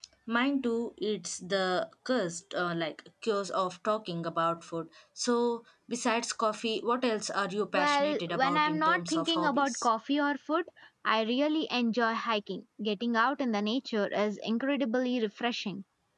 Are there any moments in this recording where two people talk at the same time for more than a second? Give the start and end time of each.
7.7-9.9

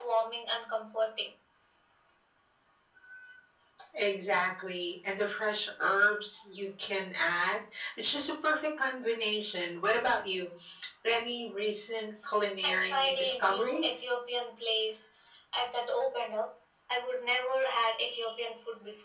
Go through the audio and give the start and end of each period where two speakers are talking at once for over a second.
12.6-13.9

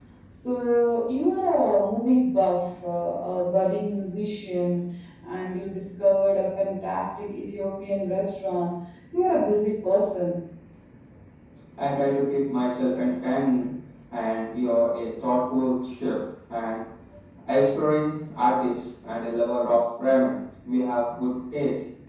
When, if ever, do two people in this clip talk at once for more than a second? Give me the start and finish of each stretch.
none

